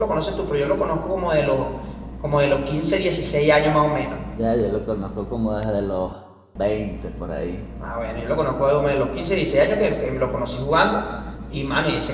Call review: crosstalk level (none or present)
none